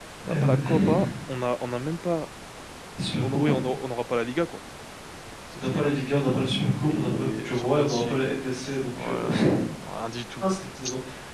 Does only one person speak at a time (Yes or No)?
No